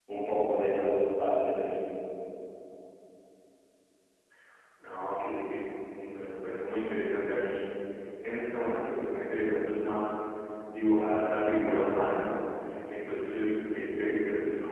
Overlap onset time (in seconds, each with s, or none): none